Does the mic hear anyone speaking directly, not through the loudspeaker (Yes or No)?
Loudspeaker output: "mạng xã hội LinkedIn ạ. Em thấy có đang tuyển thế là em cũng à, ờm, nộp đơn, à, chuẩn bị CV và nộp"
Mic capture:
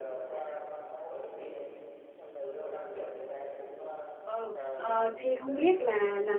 Yes